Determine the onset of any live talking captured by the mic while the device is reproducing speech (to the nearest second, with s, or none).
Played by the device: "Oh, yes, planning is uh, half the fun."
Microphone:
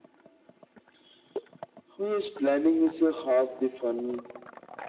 none